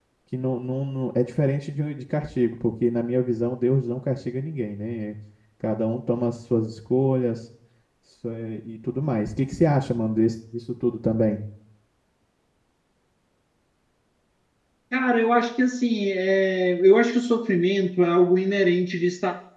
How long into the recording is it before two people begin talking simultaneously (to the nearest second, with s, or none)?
none